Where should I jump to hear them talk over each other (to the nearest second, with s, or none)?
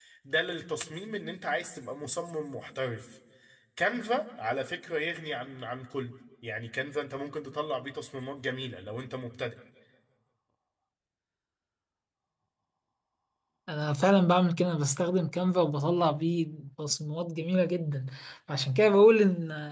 none